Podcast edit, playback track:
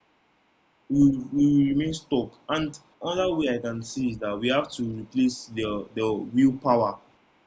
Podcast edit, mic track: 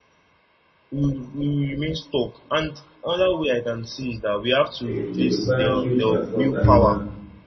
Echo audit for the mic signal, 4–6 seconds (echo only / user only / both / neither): both